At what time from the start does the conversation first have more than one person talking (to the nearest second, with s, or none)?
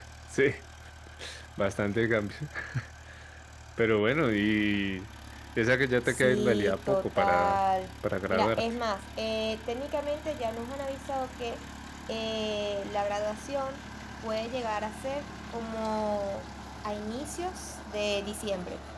6 s